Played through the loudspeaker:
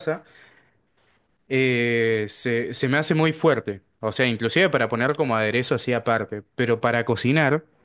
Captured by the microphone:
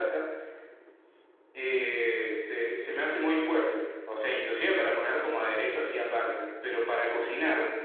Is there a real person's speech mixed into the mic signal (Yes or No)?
No